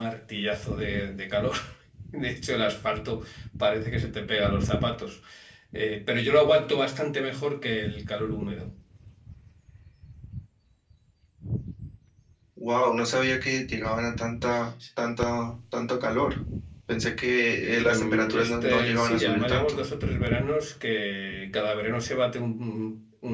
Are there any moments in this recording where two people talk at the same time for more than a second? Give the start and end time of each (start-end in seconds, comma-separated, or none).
17.9-19.8